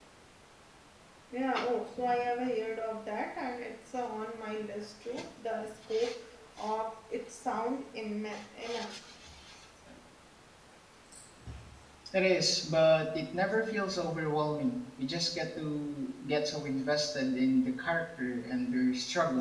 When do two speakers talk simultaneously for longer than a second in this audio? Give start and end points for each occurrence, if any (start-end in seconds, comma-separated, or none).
none